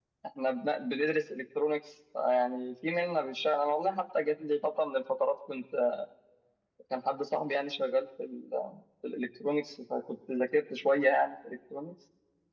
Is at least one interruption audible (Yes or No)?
No